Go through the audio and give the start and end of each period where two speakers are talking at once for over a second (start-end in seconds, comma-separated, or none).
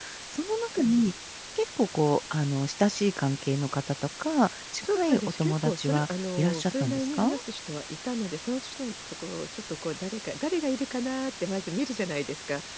4.8-7.3